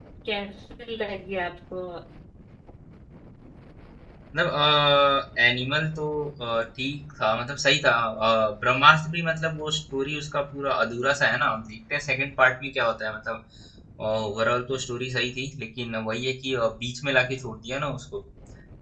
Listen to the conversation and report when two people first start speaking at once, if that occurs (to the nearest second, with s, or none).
none